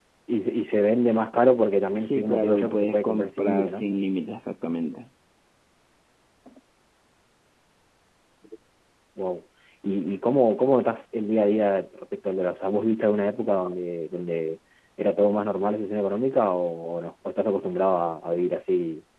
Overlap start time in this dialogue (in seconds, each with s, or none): 2.0 s